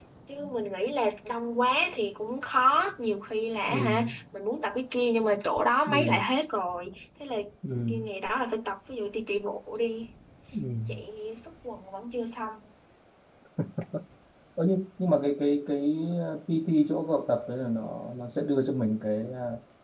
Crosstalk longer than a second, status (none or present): none